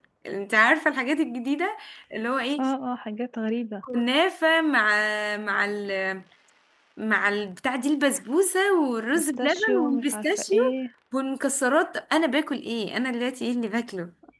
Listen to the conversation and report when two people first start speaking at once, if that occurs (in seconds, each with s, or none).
9.1 s